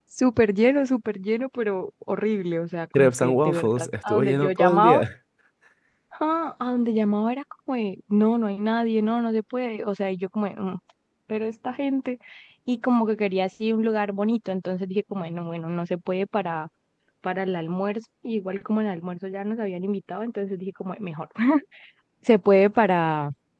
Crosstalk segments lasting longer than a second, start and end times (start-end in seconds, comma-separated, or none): 2.9-5.0